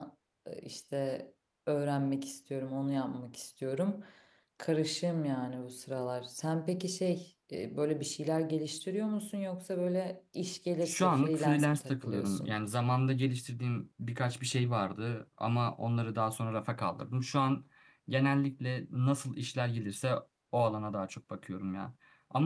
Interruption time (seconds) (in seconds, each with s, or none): 10.8 s